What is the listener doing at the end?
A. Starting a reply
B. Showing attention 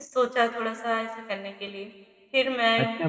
A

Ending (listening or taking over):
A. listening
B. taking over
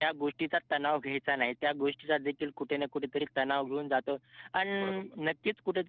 A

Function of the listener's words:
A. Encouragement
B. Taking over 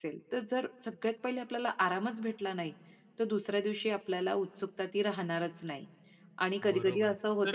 B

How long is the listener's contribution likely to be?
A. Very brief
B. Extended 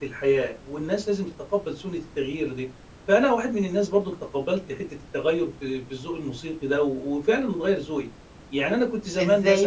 B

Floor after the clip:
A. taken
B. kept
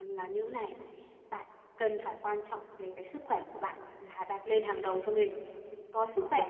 B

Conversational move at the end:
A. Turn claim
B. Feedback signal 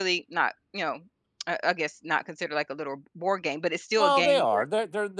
A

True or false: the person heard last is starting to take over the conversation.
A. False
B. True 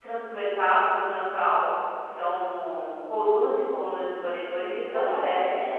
B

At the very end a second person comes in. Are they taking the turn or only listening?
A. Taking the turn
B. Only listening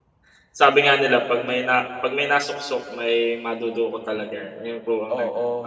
A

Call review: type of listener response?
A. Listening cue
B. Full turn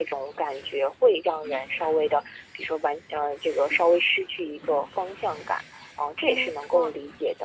A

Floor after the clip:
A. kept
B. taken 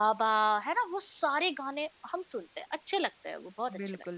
B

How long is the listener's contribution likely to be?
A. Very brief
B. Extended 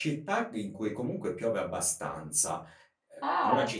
A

